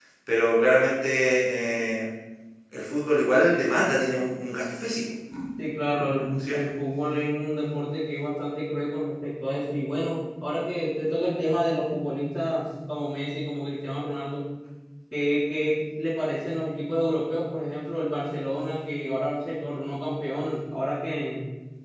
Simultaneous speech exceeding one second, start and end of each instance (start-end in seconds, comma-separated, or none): none